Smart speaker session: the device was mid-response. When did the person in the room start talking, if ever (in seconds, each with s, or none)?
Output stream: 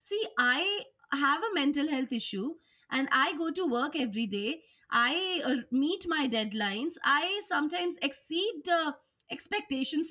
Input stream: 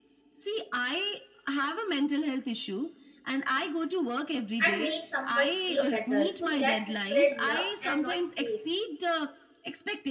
4.6 s